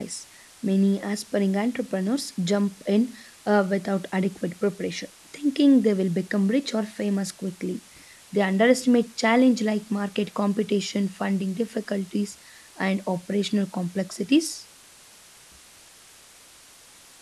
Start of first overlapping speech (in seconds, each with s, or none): none